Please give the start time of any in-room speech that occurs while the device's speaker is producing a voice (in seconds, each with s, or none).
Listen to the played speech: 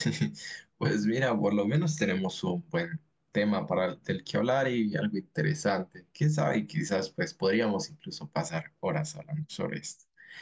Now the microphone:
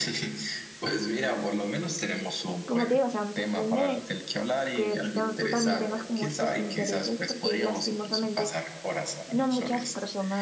2.6 s